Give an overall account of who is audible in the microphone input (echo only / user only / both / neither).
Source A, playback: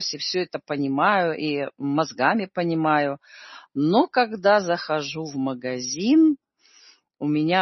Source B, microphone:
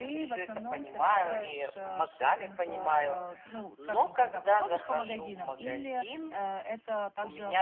both